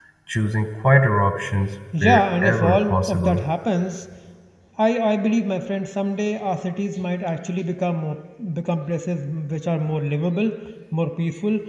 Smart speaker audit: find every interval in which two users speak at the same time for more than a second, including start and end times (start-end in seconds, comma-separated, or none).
2.0-3.4